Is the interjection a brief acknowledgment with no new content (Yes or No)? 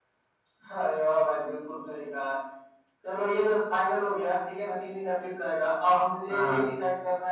Yes